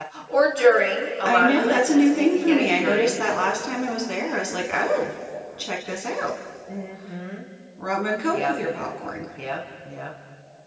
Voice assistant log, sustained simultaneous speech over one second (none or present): present